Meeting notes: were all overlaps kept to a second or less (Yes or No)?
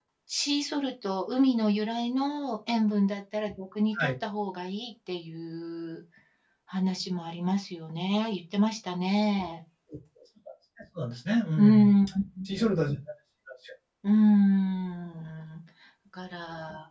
Yes